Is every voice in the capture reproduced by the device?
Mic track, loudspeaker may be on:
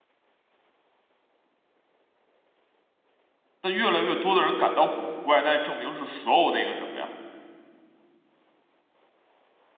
No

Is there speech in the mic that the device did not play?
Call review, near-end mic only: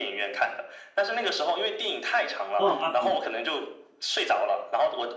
Yes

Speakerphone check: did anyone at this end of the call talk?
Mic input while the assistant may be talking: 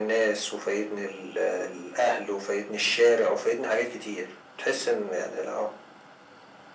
No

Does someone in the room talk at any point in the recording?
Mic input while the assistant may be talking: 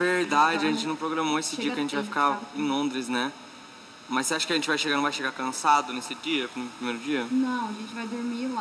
No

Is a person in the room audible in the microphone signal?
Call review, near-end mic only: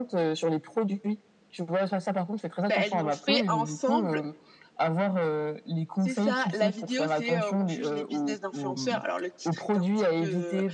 Yes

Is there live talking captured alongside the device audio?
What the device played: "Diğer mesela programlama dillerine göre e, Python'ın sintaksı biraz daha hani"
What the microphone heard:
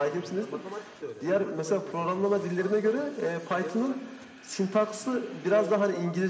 Yes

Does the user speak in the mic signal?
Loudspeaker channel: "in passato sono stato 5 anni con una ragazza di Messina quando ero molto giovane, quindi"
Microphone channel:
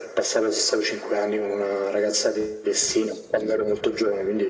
No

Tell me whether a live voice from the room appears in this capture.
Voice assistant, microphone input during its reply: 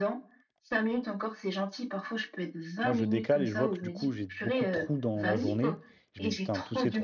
Yes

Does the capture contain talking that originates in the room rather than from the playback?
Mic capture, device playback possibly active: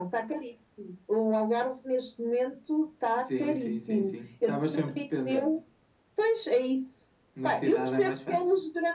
No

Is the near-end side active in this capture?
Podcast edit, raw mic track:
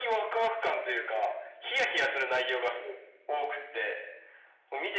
No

